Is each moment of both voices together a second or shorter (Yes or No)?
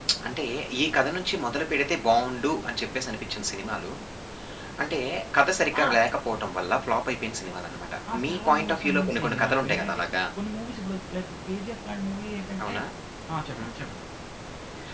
No